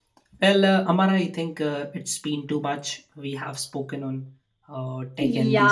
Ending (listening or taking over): taking over